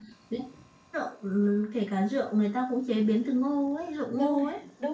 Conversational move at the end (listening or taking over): taking over